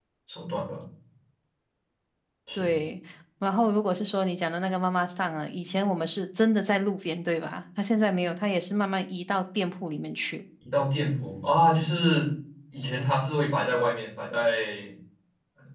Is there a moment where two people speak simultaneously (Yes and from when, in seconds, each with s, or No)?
No